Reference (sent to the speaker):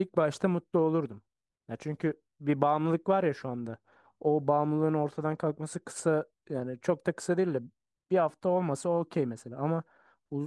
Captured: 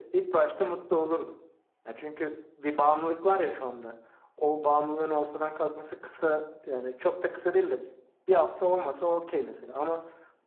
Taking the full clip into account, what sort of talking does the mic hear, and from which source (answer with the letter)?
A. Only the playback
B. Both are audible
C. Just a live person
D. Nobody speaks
A